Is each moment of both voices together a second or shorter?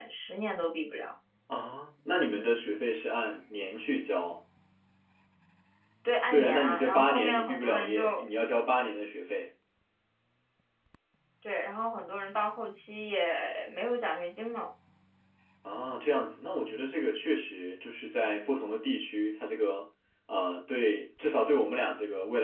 No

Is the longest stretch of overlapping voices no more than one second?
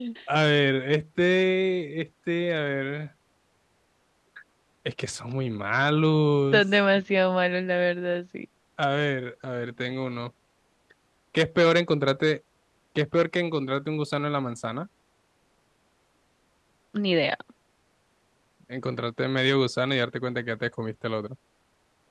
Yes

